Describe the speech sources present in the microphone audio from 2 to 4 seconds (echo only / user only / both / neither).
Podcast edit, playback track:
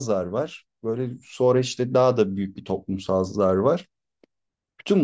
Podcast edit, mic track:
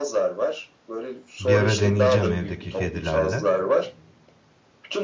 both